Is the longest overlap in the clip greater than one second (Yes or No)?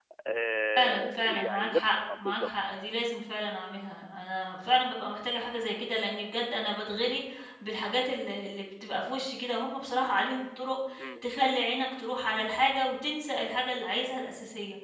Yes